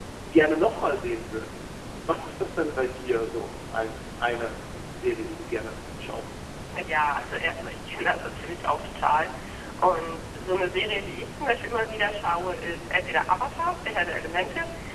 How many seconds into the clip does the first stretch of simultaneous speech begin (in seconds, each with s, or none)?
none